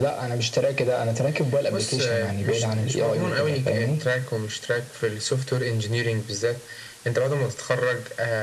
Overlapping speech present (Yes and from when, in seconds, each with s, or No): Yes, from 1.7 s